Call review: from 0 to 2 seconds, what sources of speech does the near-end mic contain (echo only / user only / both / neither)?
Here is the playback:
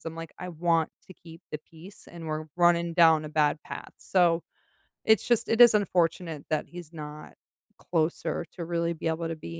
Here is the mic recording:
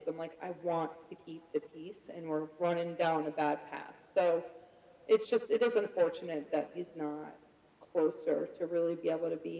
echo only